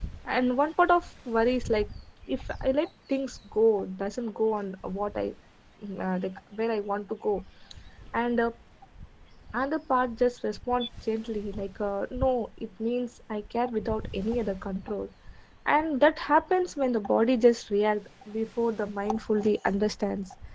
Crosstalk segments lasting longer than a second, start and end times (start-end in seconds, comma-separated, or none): none